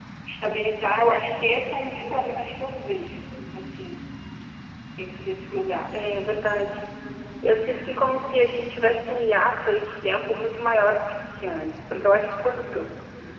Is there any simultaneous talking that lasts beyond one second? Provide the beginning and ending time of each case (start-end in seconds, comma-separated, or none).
none